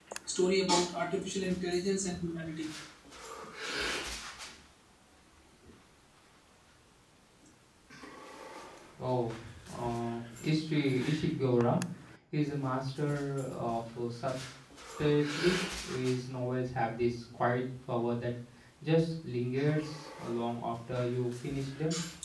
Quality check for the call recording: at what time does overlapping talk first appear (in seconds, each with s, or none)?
none